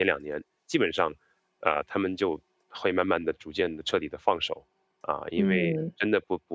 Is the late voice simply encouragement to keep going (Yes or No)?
Yes